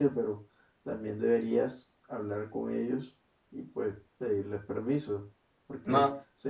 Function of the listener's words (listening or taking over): listening